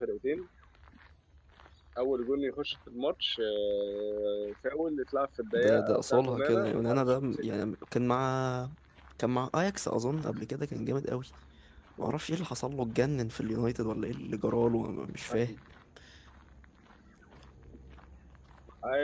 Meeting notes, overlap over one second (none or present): present